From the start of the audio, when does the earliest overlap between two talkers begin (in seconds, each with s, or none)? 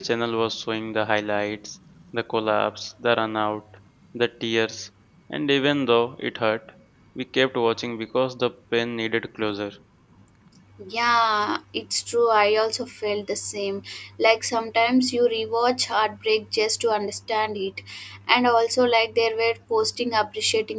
none